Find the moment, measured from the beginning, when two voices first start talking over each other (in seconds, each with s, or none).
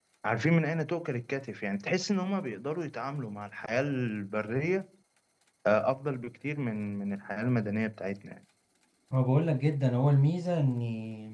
none